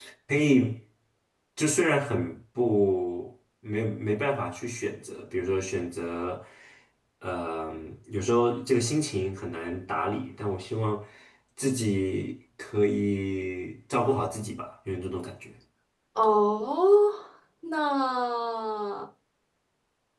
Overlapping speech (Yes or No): No